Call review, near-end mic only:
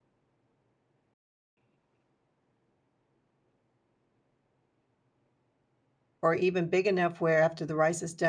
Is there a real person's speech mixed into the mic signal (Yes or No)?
Yes